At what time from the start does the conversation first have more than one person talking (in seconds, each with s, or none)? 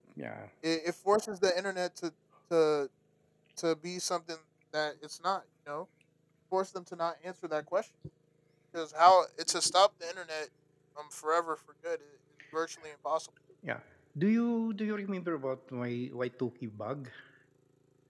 none